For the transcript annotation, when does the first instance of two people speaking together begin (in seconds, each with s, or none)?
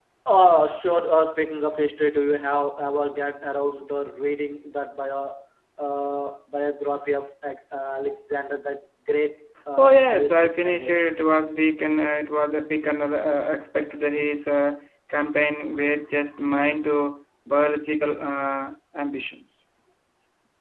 9.8 s